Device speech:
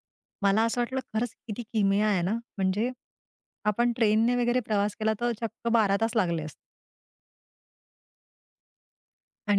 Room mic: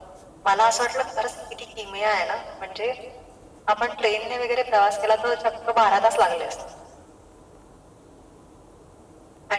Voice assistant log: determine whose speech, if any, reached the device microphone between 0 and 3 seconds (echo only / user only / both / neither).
echo only